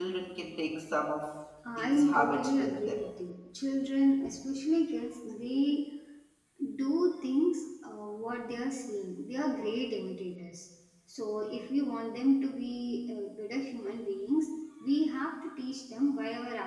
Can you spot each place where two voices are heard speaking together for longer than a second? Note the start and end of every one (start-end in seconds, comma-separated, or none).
1.8-3.0